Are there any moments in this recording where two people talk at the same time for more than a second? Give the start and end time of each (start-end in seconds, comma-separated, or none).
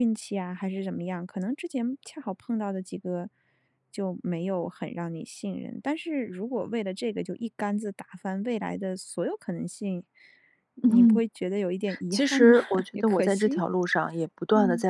12.1-13.6